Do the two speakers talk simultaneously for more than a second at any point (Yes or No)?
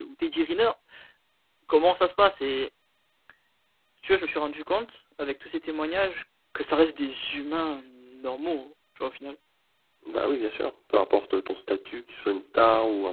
No